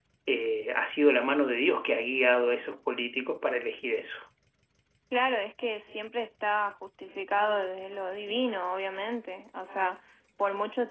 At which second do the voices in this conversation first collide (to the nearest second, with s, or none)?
none